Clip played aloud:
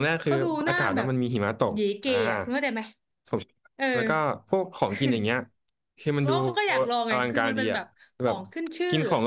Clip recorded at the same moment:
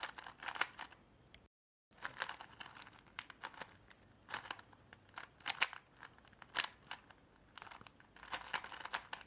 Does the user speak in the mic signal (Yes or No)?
No